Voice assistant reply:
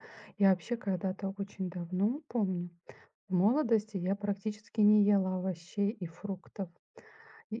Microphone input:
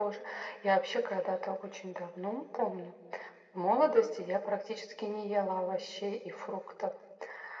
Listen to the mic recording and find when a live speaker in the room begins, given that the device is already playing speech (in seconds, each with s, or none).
none